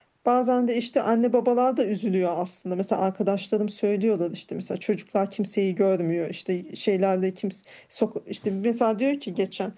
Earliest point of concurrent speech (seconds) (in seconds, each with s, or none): none